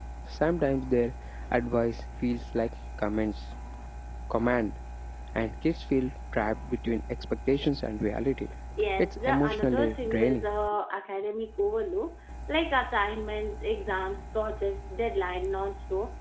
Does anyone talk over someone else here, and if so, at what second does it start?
9 s

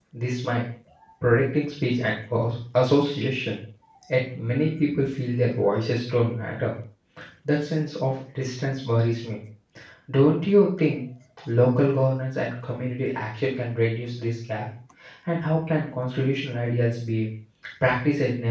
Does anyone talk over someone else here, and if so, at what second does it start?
none

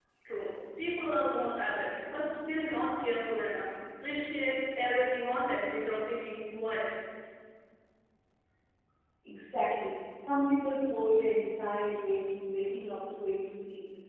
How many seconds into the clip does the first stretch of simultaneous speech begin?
none

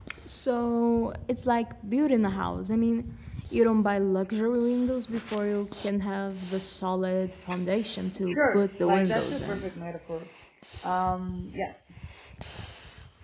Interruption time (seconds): 8 s

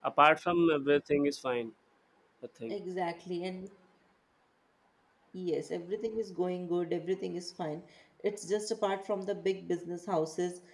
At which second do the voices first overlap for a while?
none

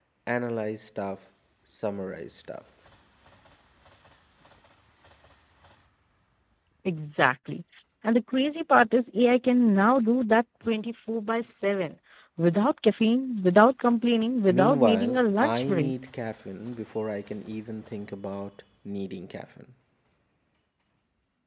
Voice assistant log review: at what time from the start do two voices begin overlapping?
14 s

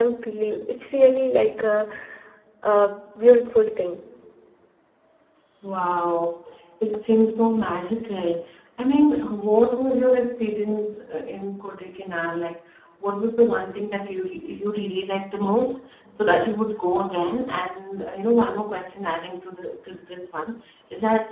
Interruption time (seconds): none

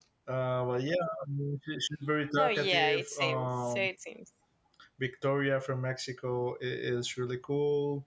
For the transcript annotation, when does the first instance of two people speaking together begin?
2 s

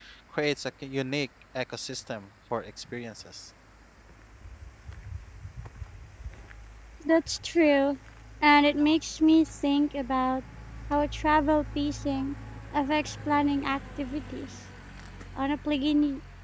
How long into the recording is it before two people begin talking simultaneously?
none

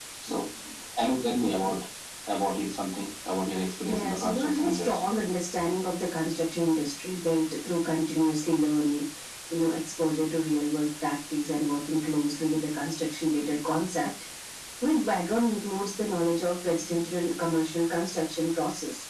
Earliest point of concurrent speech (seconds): 4 s

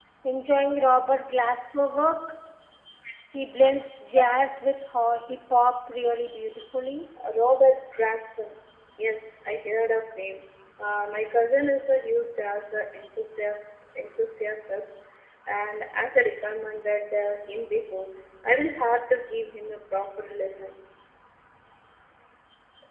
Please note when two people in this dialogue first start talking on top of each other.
none

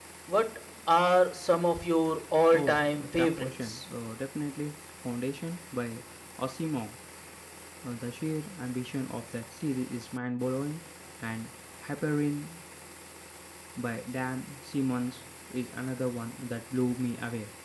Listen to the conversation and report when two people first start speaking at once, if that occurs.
3 s

